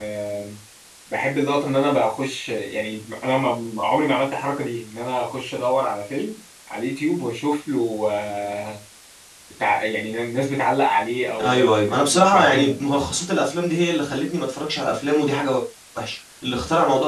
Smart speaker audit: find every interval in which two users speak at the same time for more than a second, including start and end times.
11.4-12.8

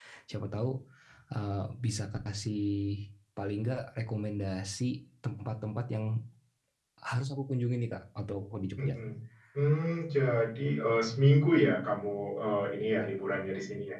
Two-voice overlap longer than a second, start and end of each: none

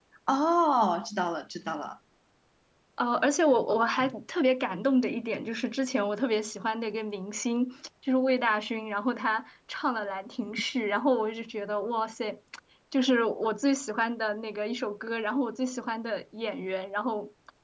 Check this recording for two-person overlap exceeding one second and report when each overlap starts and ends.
none

